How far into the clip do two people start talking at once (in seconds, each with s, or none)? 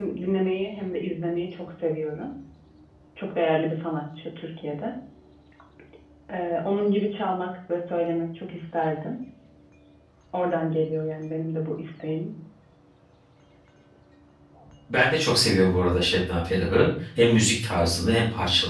none